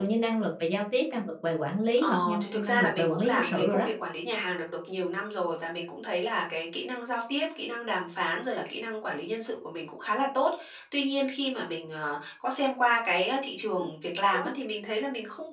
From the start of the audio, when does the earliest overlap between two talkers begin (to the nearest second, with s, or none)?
2 s